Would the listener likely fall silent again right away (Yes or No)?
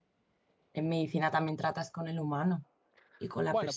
No